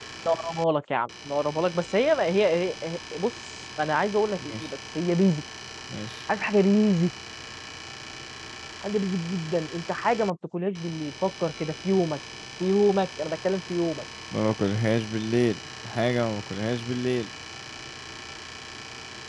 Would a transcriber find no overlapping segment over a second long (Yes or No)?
Yes